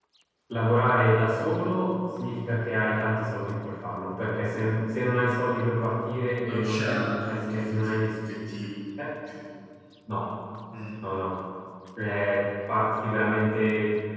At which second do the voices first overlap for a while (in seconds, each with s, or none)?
6.4 s